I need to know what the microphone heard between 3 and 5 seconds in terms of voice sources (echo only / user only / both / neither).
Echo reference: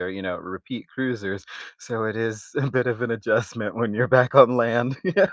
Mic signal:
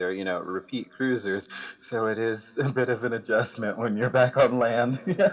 echo only